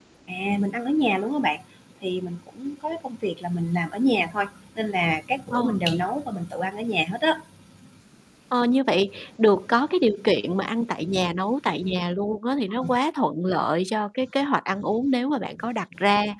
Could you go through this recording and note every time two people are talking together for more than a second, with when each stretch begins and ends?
none

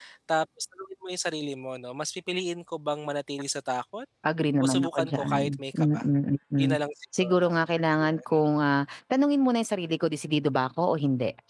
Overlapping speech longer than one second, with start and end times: 4.6-6.1

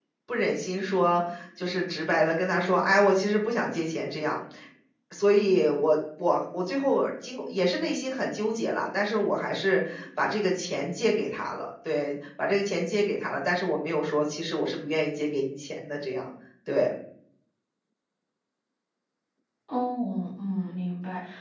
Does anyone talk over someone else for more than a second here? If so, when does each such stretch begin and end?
none

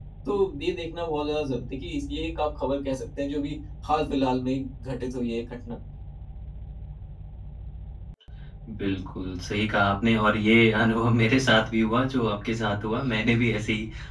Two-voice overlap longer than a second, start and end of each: none

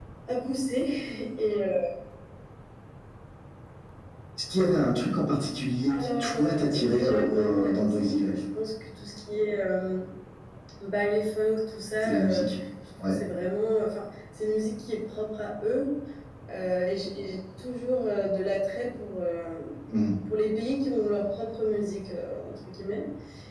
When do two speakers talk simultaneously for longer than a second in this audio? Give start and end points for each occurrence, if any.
5.9-8.3

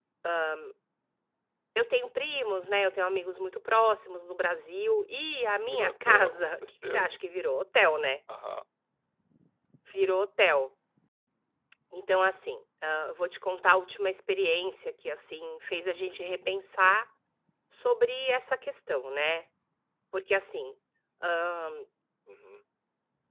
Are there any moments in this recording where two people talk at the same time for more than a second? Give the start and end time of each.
5.6-7.2

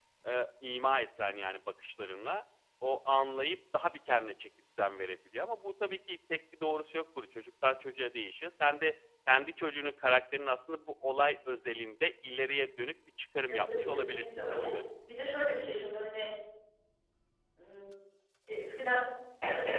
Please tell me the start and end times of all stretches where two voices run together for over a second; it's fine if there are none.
13.5-14.7

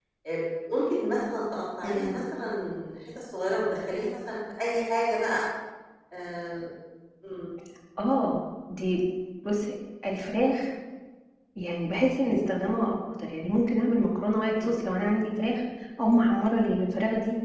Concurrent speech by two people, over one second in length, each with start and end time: none

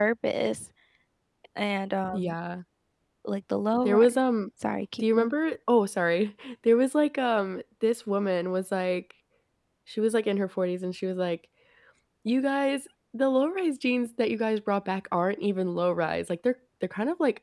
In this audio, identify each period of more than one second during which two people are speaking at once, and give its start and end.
none

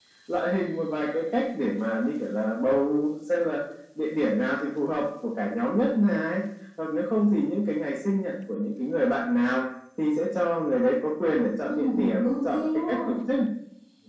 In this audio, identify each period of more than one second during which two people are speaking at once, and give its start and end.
11.6-13.2

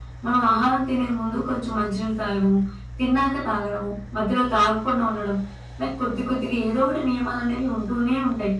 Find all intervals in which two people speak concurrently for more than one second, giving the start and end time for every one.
none

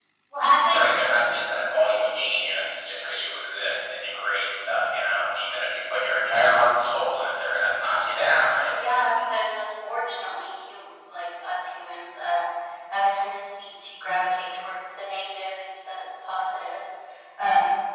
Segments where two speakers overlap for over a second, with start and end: none

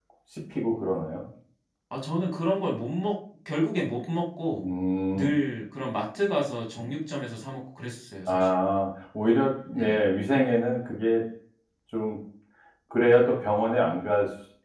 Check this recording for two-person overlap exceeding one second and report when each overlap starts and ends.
none

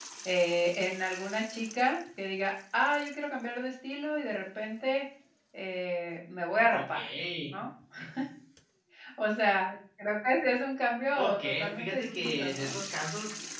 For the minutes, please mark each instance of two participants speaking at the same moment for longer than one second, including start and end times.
11.2-12.7

